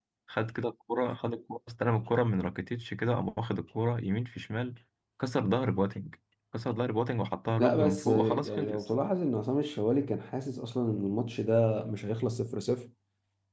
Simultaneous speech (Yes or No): Yes